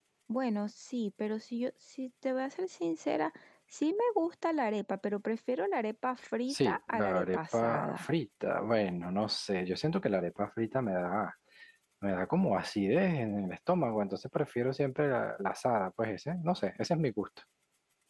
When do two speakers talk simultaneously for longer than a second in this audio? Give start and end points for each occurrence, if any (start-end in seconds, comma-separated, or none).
6.5-8.1